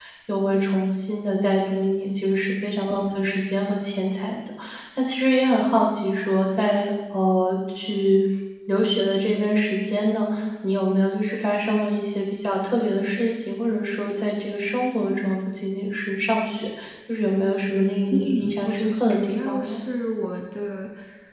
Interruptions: present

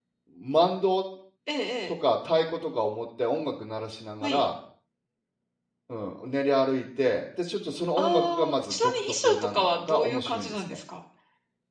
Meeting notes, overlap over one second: present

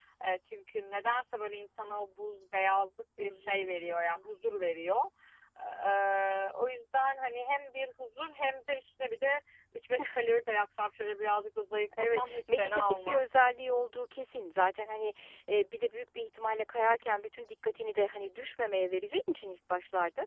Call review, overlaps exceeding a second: present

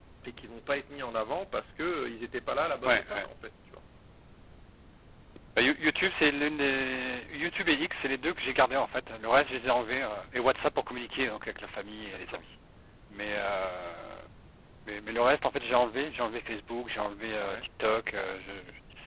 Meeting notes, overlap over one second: none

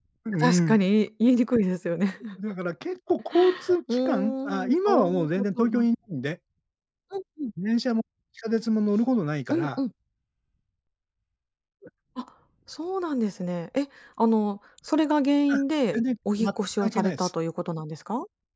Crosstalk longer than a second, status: present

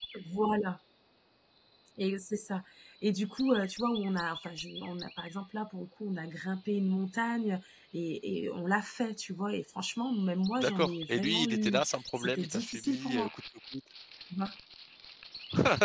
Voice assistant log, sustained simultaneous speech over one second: present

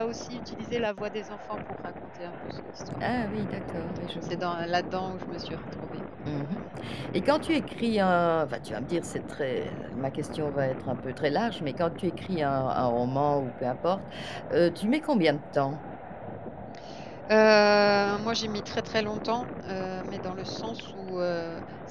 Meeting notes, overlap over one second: none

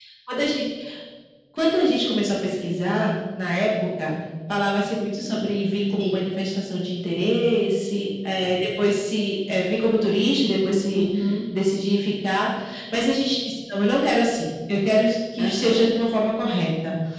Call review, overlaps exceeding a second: none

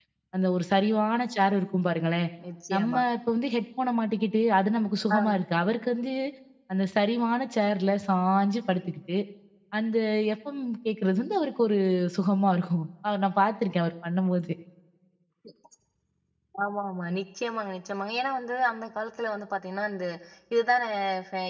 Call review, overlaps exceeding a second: none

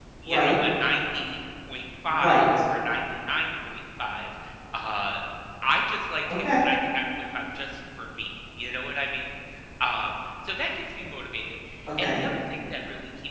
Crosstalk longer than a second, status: none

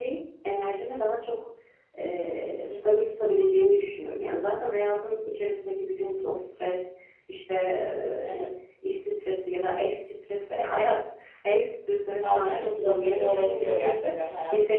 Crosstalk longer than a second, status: present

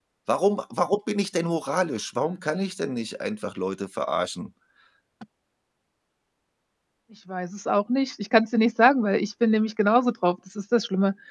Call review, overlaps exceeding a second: none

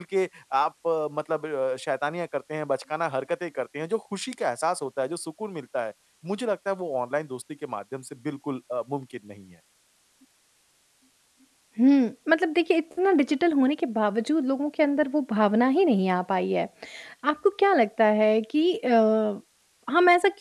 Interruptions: none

